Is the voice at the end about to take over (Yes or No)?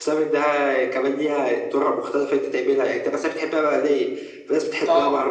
No